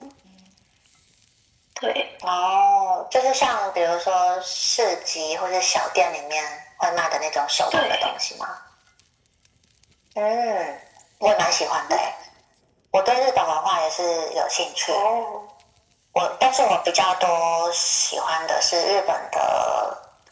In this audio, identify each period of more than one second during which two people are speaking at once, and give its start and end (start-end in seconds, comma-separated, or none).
none